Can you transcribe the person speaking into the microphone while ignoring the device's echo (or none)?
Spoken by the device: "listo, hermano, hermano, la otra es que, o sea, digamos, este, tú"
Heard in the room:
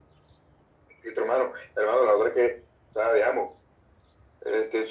none